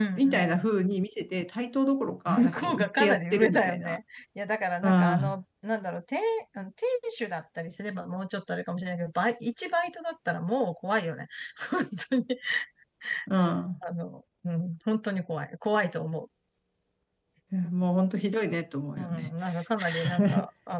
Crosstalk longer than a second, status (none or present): present